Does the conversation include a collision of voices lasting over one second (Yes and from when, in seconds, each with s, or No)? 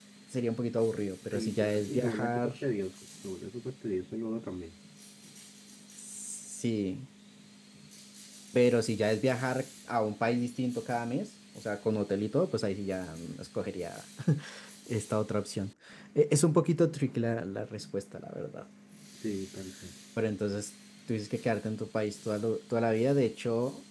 Yes, from 1.3 s